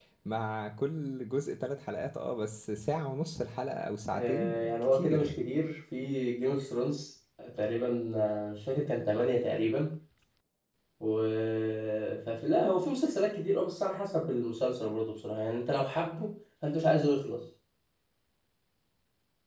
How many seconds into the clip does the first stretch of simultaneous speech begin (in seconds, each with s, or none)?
4.1 s